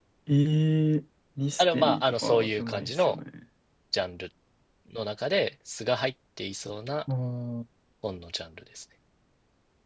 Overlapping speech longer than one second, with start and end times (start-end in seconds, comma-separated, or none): 1.6-3.2